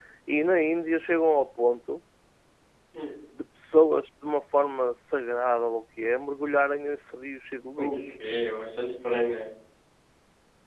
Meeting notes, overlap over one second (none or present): none